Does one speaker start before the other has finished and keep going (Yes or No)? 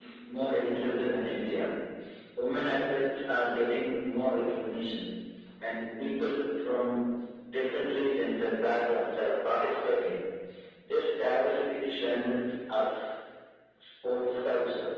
No